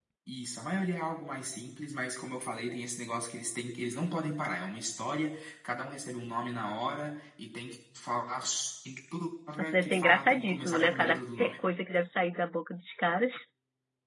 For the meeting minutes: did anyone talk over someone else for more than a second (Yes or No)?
Yes